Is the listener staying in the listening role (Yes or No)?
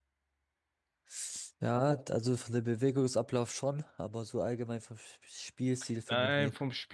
No